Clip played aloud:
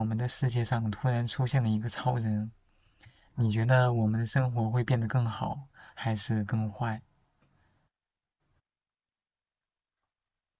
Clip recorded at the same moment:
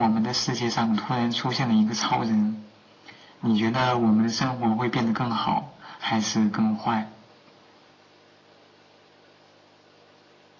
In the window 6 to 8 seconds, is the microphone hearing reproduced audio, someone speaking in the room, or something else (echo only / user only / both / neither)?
echo only